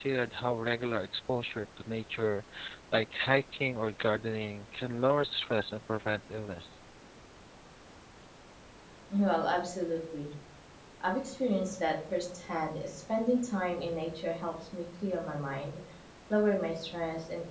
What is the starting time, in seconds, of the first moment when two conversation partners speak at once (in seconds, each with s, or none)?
none